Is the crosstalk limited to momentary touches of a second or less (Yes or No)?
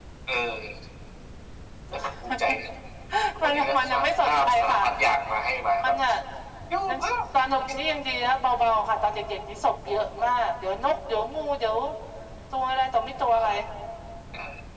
No